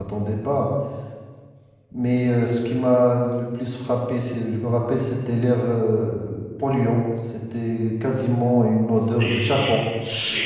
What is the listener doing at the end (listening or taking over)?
taking over